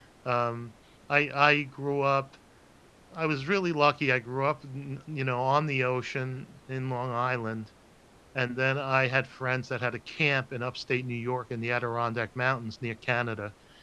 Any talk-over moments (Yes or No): No